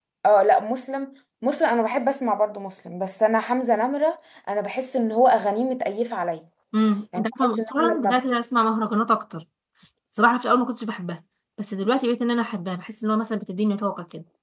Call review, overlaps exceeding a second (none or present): present